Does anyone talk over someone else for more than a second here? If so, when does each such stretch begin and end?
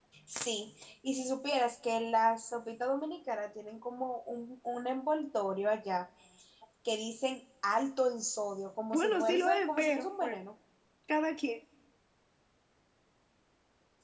8.9-10.4

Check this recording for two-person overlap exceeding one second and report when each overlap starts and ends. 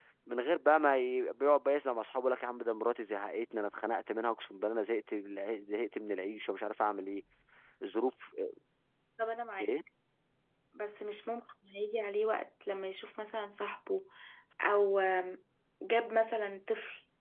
none

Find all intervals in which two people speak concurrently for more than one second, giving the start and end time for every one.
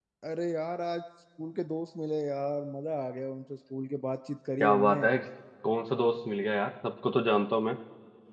none

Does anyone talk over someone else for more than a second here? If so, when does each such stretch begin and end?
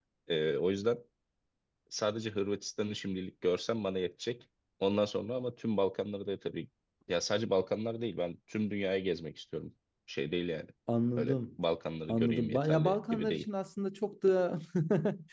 12.1-13.4

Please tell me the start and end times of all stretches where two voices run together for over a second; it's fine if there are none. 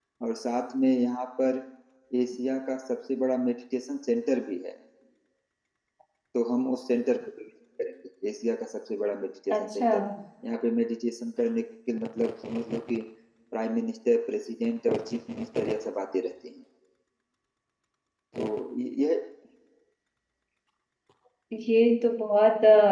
none

